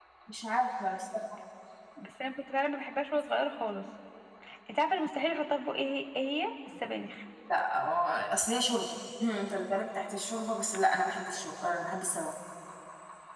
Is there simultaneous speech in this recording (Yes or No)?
No